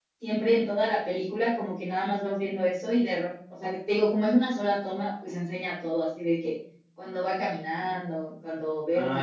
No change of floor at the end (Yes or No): No